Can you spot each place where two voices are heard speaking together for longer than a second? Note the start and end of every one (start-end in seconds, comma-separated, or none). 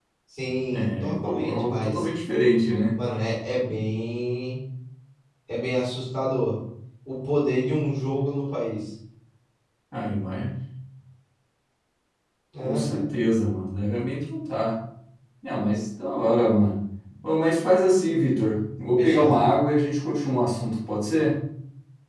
0.7-2.0